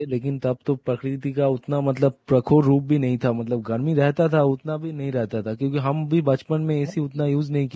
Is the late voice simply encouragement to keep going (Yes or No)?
Yes